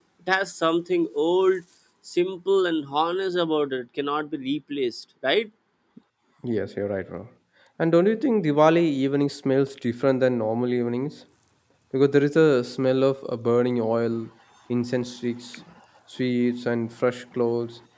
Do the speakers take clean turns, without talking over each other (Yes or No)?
Yes